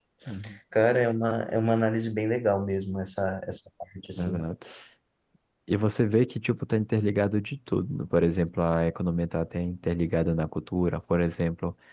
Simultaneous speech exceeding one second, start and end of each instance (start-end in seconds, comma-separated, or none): none